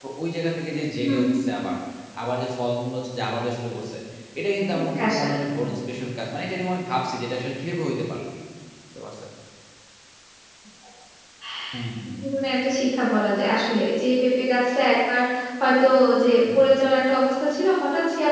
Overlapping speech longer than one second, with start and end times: none

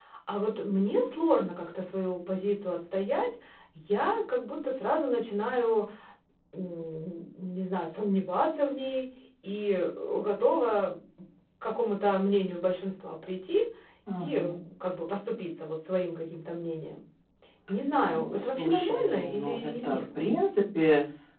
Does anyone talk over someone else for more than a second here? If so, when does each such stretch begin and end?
18.1-20.0

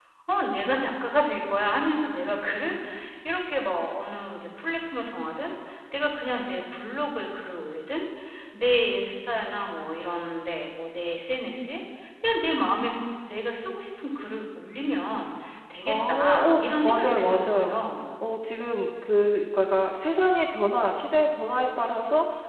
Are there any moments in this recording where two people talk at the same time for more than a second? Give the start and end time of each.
15.8-17.8

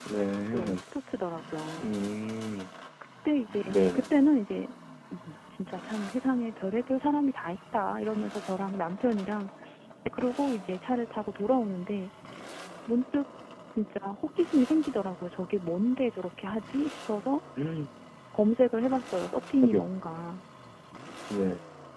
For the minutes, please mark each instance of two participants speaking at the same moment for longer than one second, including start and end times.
none

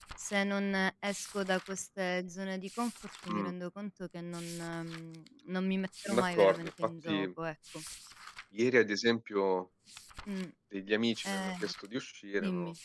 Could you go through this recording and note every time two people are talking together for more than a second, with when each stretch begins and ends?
6.0-7.3

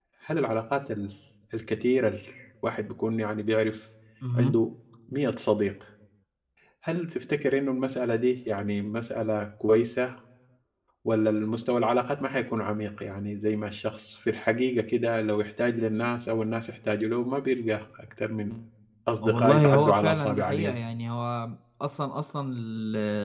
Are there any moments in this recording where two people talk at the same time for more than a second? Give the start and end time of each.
19.2-20.8

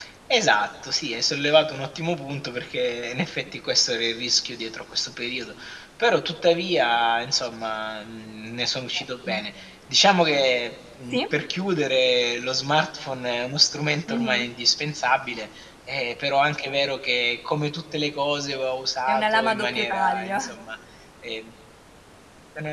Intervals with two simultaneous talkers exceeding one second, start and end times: 19.1-20.4

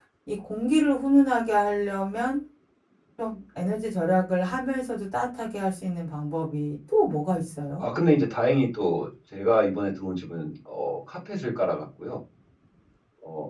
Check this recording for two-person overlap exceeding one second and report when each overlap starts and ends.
none

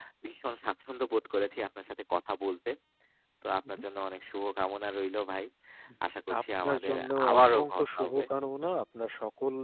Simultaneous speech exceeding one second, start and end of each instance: 6.4-8.2

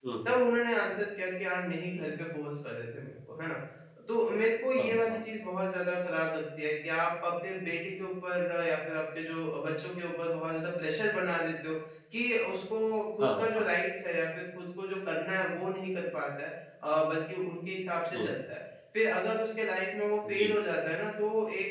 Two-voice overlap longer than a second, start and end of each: none

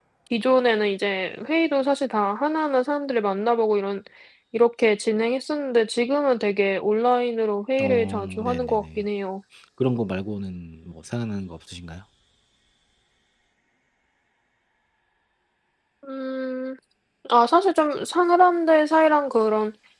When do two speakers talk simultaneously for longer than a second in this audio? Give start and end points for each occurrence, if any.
7.8-9.0

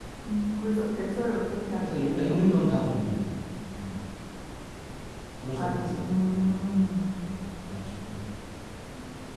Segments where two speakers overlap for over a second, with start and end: 5.5-6.9

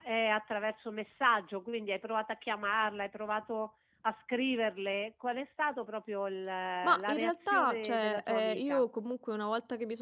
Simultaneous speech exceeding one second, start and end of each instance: 6.8-8.8

